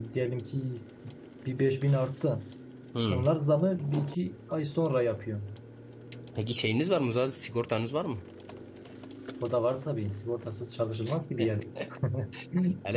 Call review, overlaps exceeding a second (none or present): none